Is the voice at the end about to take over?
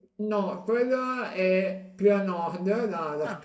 No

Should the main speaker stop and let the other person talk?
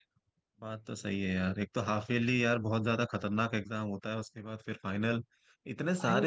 No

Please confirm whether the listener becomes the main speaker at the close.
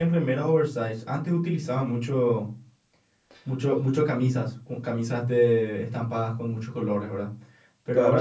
No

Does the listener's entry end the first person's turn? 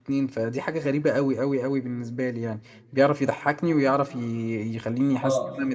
Yes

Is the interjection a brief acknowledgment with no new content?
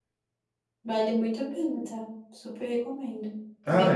No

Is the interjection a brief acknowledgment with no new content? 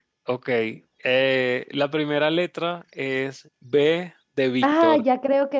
No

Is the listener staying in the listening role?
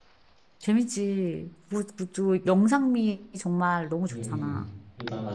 No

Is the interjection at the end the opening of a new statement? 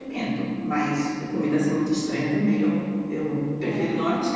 No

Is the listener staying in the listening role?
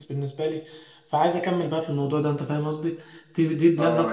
No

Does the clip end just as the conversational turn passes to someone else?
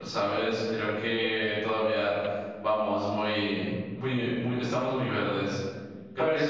Yes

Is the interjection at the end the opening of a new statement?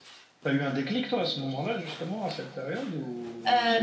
Yes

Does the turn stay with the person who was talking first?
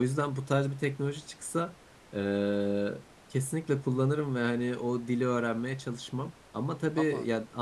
Yes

